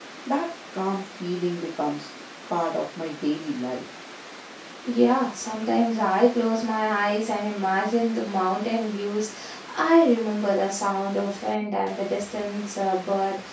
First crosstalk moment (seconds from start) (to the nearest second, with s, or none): none